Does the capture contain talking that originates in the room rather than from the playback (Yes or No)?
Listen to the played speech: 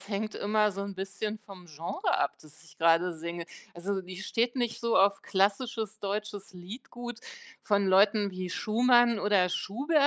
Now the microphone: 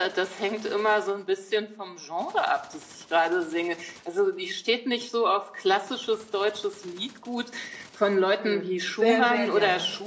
Yes